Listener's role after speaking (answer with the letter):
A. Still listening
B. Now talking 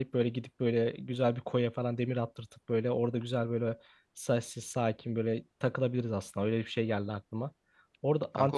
A